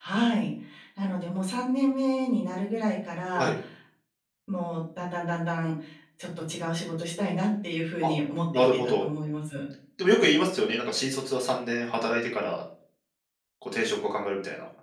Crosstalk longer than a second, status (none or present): none